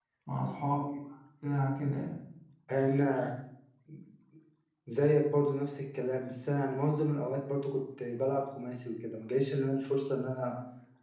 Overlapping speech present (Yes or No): No